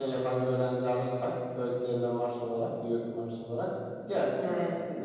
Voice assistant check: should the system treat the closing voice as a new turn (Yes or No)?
Yes